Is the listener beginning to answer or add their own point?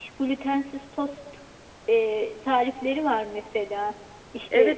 Yes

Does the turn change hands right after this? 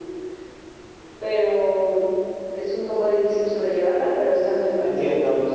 Yes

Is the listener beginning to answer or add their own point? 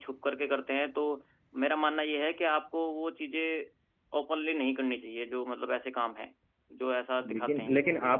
Yes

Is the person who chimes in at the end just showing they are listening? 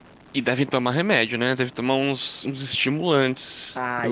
No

